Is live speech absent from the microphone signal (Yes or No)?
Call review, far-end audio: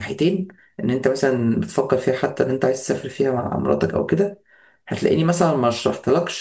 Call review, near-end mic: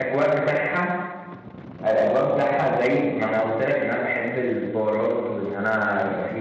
No